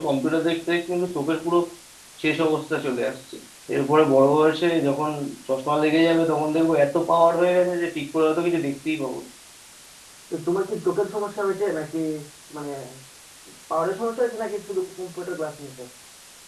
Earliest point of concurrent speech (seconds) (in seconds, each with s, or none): none